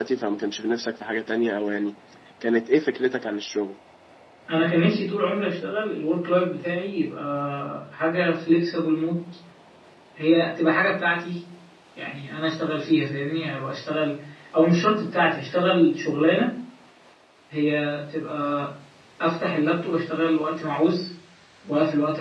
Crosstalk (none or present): none